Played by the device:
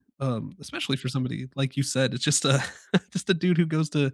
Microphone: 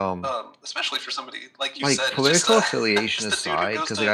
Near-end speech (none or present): present